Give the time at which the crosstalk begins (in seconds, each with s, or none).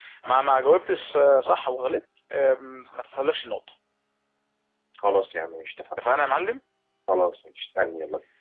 none